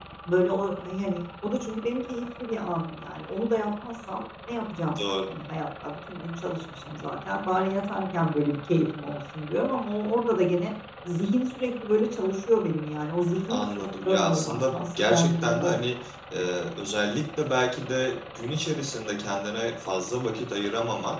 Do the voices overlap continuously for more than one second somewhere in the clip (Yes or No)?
Yes